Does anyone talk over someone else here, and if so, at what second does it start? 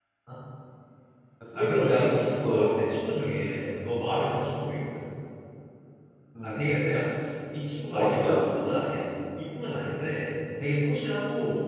1.6 s

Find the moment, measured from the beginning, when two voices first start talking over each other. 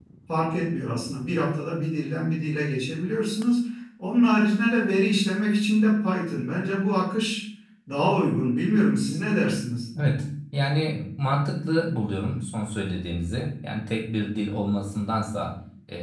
none

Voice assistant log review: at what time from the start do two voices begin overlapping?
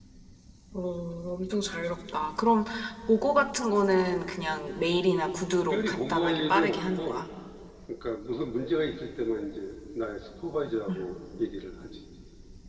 5.7 s

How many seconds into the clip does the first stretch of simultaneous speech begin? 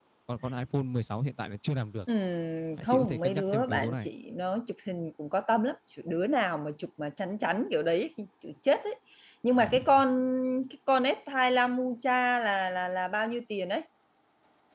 2.9 s

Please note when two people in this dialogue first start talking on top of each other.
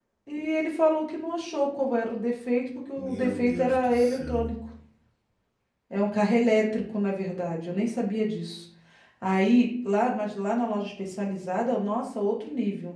3.0 s

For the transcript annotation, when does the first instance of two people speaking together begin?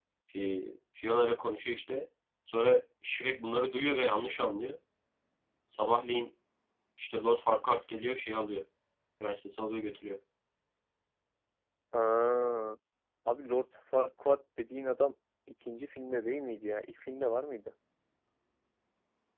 none

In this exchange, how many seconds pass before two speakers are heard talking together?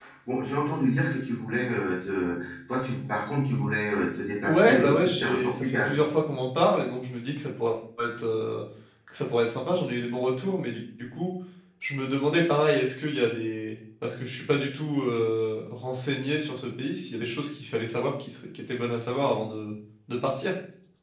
4.4 s

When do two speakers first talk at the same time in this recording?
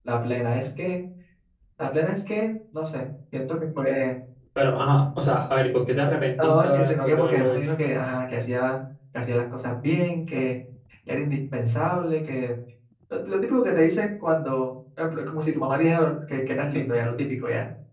6.4 s

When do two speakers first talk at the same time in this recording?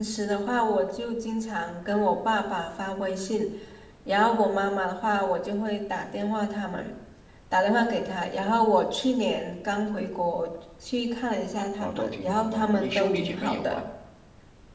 11.8 s

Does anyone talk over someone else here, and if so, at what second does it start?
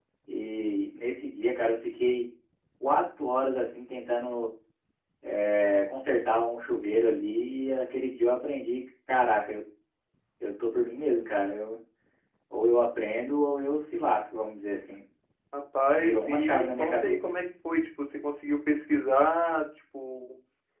15.9 s

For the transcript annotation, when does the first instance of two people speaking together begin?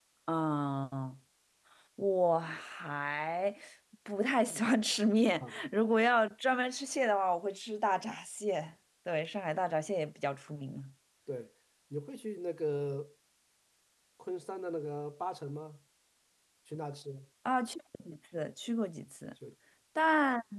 none

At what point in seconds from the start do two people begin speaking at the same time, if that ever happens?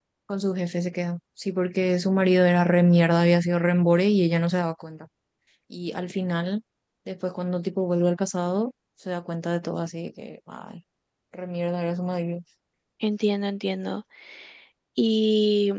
none

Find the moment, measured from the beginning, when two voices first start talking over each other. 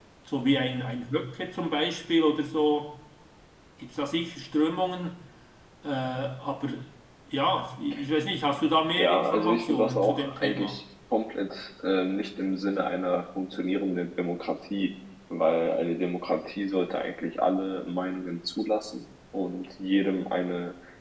9.0 s

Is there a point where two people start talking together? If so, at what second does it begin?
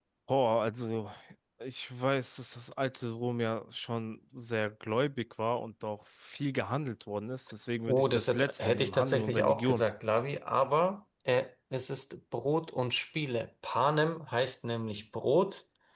7.9 s

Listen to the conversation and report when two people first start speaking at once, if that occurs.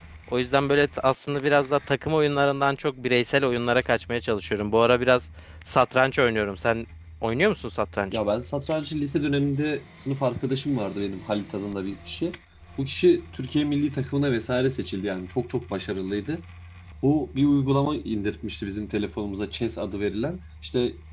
none

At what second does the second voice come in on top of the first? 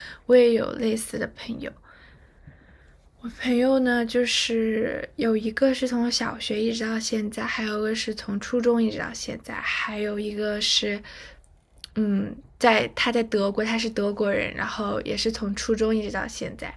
none

